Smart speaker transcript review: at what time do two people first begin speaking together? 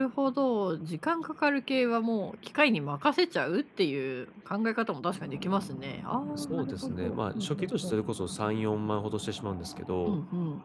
6.3 s

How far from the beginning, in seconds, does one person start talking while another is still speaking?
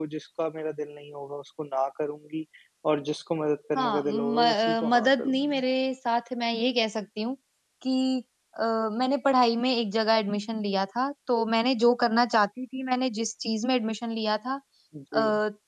3.8 s

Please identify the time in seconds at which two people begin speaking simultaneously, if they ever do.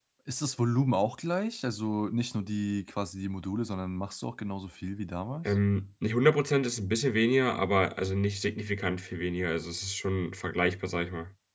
none

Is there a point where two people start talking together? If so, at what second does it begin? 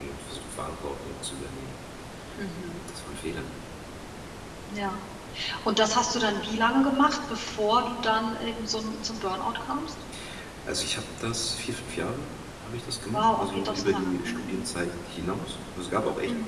13.1 s

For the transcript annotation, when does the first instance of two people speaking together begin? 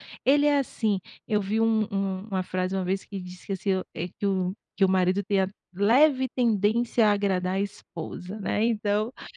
none

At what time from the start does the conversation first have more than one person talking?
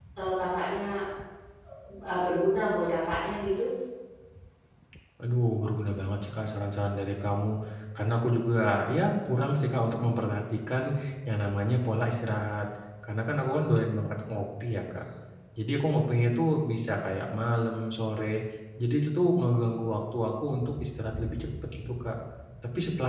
none

